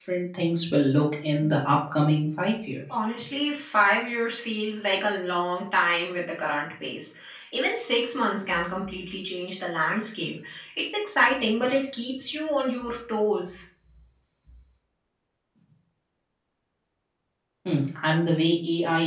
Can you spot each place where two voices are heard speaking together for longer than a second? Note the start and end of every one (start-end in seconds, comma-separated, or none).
none